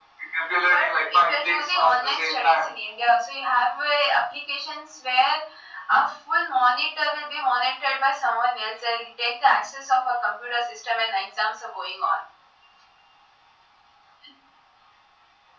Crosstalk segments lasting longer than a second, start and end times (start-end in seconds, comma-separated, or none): 0.6-2.7